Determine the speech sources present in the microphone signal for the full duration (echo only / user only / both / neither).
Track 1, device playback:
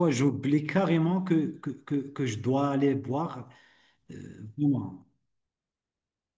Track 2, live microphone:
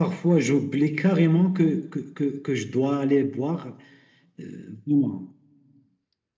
echo only